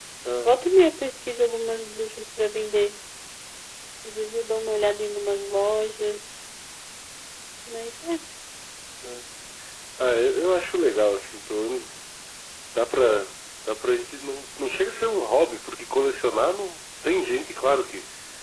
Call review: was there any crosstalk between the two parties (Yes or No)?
No